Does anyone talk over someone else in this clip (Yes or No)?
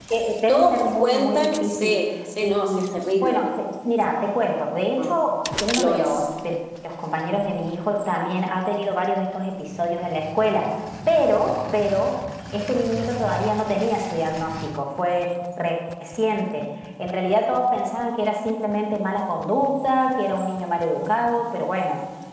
Yes